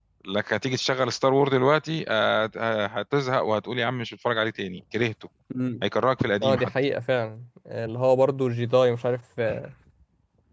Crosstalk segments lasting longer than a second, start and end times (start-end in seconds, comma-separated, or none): none